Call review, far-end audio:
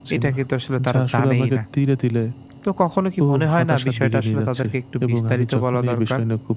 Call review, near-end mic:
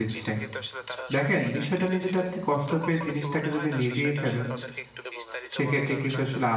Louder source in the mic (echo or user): user